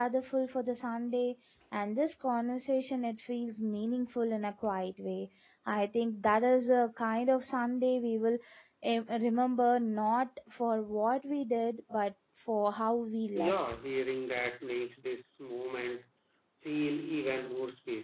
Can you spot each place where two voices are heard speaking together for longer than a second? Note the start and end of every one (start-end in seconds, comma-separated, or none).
none